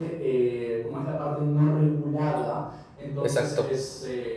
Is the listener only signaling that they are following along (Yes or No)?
Yes